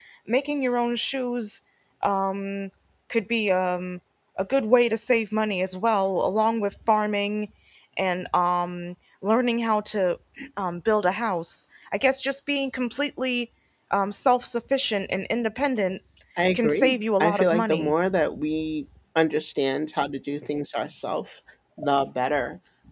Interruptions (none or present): present